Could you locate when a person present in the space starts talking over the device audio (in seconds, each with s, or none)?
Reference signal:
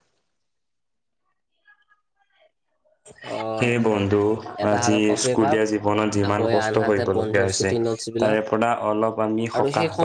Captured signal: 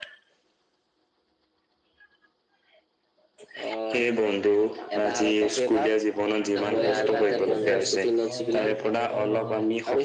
6.6 s